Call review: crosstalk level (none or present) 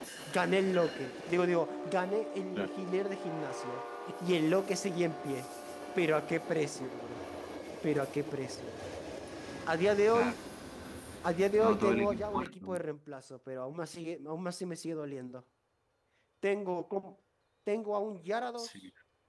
present